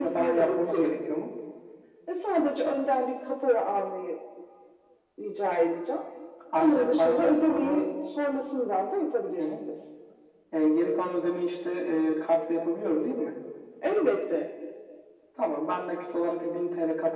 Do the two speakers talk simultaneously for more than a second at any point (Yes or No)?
Yes